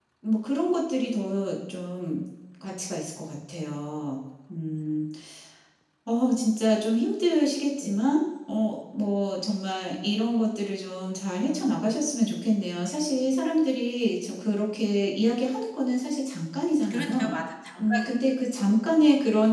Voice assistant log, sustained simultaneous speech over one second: none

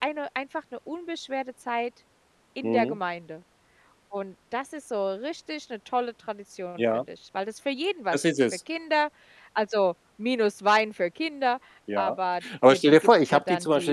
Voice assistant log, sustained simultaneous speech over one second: present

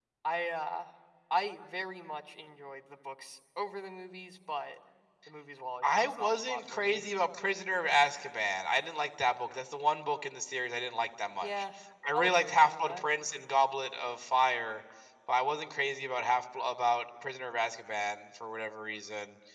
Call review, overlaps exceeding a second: present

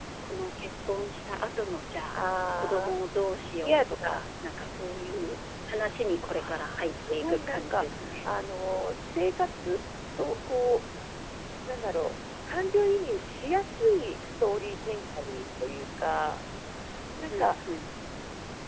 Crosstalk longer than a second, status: present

